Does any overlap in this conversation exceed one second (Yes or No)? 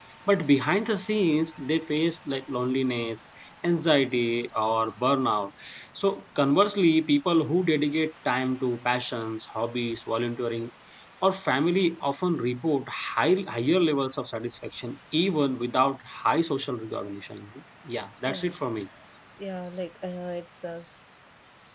No